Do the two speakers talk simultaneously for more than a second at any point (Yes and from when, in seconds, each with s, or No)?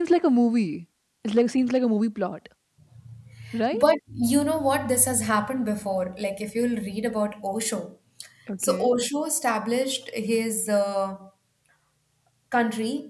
No